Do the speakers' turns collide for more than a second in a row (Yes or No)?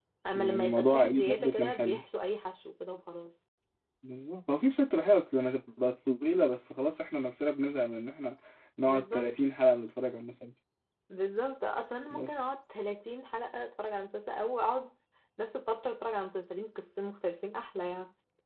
Yes